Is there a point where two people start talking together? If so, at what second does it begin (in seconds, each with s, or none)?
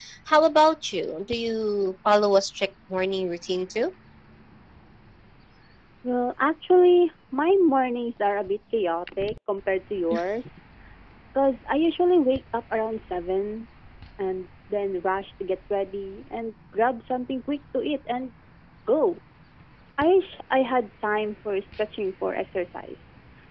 none